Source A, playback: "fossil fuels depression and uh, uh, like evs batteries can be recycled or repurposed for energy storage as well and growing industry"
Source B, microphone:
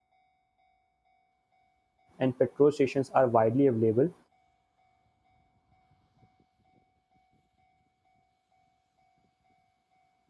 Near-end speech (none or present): present